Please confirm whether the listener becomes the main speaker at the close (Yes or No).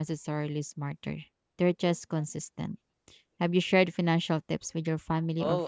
Yes